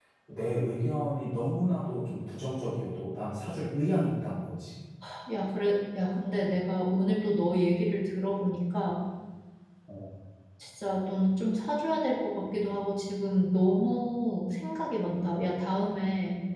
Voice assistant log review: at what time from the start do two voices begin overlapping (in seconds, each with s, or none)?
none